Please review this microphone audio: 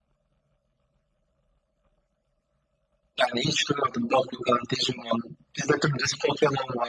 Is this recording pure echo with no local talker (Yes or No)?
Yes